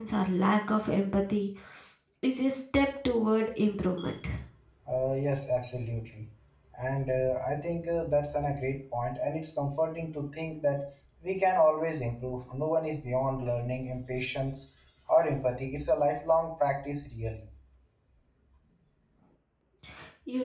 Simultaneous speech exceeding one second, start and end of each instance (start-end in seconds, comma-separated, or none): none